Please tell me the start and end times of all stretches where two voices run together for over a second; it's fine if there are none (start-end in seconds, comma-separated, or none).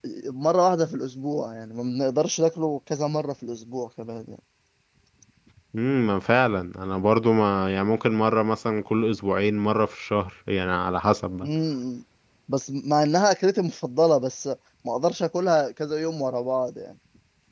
none